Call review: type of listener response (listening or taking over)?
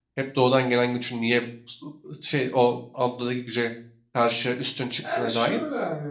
taking over